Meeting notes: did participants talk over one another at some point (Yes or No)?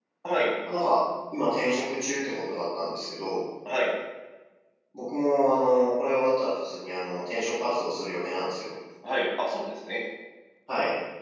No